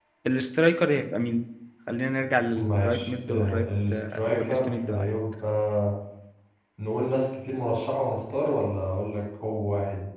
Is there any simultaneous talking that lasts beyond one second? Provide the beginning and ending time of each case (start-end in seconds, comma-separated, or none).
2.6-5.1